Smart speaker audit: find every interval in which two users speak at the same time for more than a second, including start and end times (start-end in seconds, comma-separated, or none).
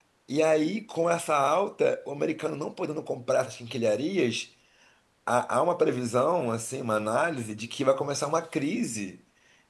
none